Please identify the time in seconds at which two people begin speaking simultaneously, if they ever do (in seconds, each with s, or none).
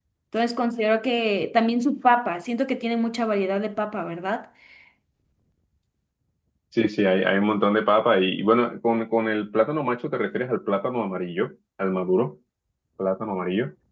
none